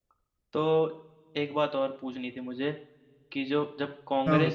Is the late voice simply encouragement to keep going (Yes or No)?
Yes